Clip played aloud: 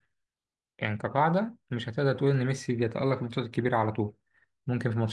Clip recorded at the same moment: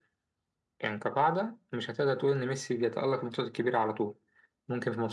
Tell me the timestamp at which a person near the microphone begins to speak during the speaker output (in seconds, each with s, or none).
none